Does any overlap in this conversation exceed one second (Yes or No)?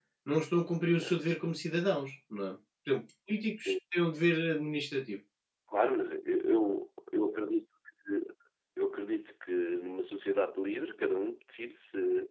No